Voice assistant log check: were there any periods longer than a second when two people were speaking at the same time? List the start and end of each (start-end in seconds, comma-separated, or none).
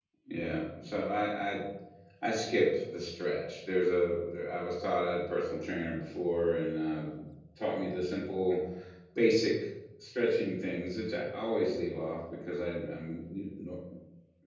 none